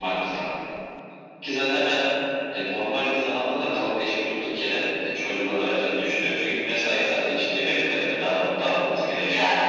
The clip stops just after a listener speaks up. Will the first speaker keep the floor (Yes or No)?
No